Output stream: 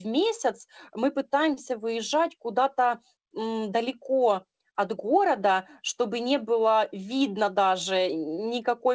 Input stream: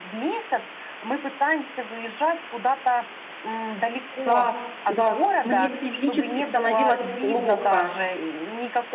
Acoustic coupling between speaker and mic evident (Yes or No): Yes